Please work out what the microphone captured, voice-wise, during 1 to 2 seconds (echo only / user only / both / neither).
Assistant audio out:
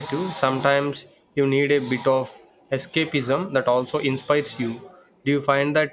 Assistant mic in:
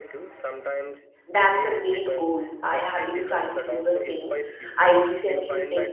both